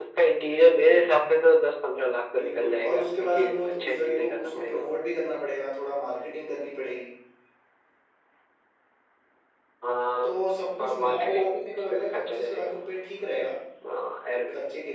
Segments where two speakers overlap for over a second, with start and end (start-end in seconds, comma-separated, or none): 2.4-4.9, 10.8-12.8